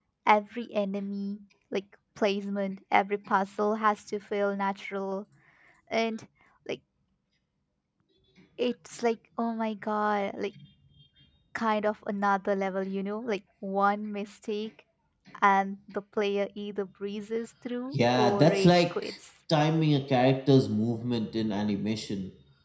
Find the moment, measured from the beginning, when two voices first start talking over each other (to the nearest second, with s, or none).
18 s